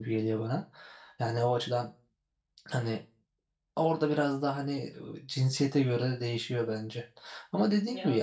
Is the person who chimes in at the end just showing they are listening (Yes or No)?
Yes